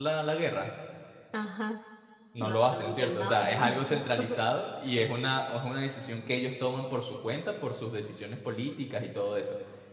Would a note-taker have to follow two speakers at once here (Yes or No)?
Yes